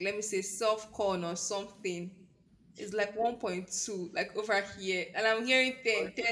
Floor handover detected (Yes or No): Yes